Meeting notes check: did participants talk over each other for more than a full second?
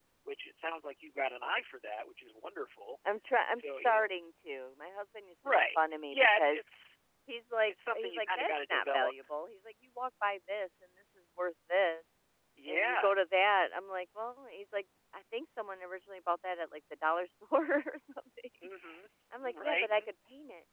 Yes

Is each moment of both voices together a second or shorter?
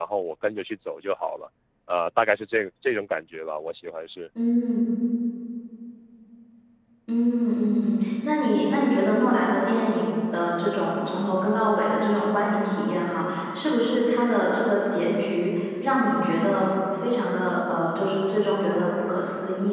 Yes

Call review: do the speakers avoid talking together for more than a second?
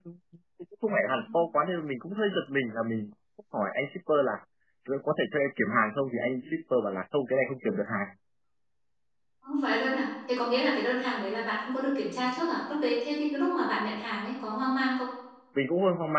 Yes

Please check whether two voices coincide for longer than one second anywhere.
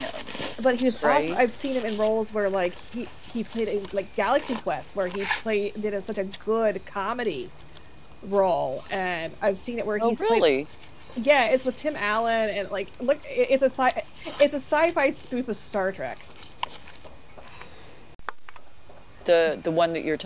No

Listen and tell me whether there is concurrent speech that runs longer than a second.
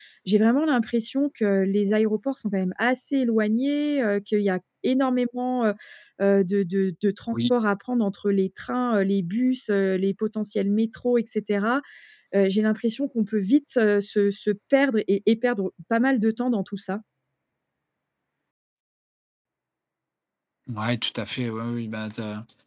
No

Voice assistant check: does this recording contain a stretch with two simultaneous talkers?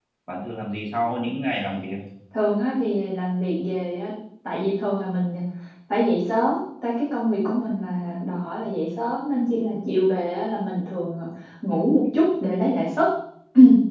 No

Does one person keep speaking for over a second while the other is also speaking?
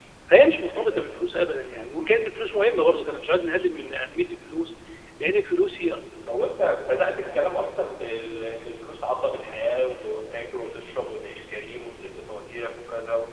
No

